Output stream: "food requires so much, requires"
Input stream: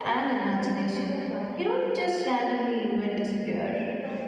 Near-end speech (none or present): present